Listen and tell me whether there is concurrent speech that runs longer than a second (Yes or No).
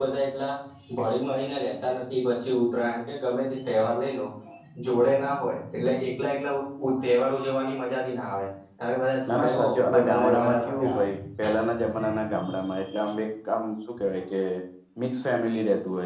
Yes